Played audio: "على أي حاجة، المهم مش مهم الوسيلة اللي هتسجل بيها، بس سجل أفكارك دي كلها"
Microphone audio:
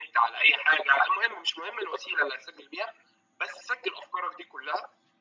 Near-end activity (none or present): none